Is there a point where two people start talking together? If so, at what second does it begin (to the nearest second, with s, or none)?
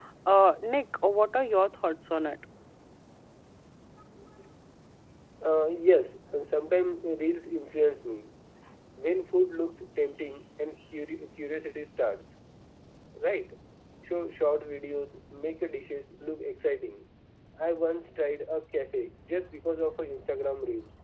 none